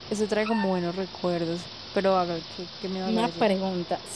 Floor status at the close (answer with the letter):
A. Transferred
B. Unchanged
A